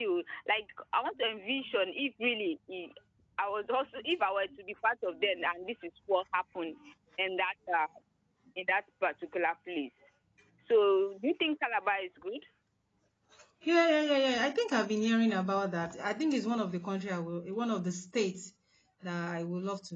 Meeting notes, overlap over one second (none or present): none